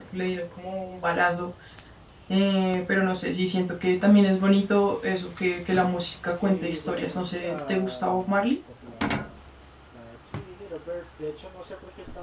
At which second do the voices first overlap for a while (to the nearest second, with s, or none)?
6 s